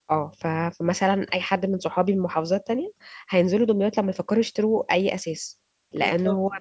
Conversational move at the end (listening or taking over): listening